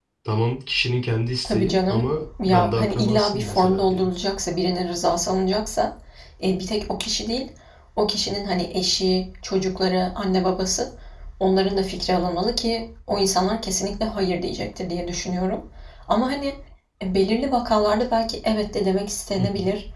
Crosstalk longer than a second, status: present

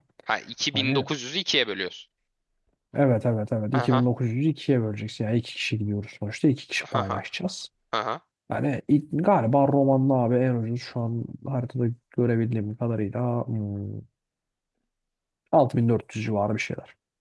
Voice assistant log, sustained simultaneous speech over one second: none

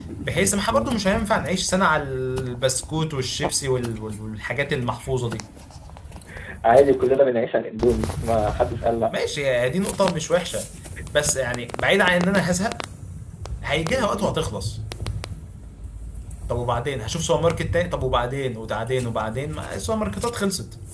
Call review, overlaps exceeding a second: none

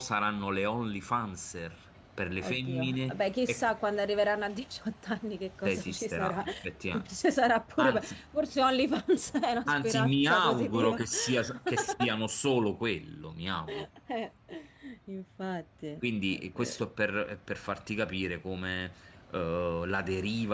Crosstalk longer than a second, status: present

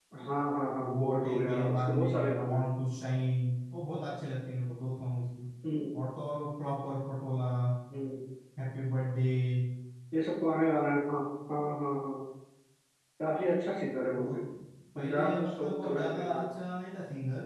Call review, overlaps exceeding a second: present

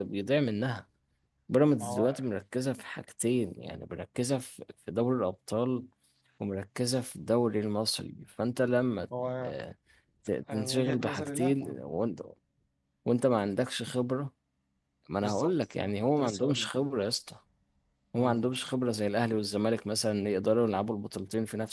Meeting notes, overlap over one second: present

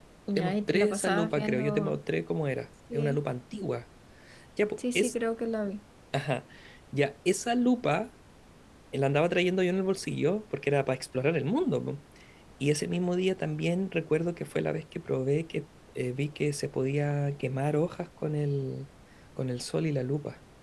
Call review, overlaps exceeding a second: present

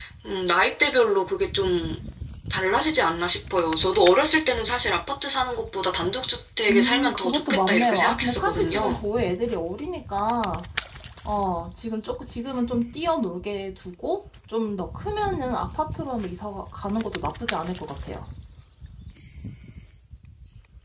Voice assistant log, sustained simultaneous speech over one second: present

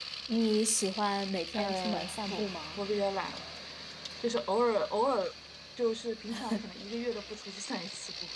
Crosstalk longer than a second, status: present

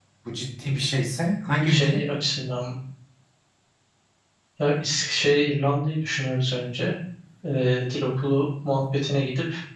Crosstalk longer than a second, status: none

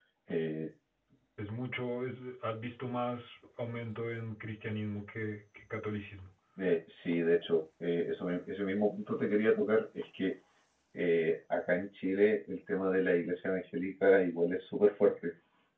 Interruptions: none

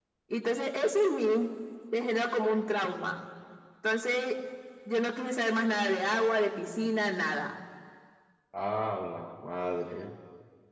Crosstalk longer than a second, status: none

